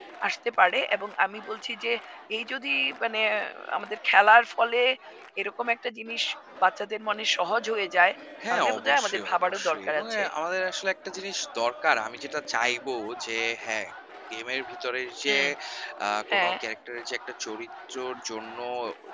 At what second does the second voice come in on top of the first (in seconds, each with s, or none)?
8.5 s